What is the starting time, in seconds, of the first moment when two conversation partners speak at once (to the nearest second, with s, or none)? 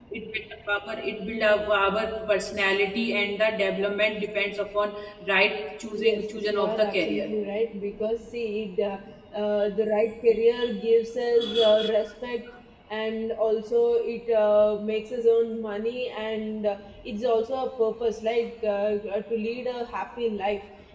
6 s